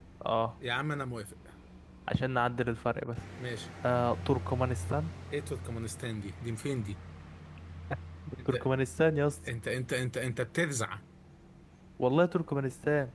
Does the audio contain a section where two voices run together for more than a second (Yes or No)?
No